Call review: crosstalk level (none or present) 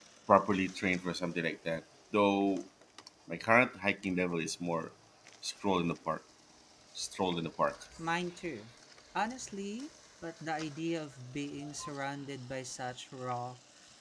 none